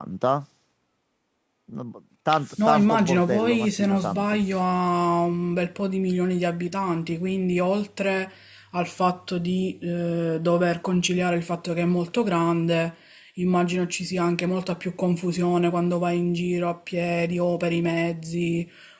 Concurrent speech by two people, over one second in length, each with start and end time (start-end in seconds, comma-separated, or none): 2.6-4.4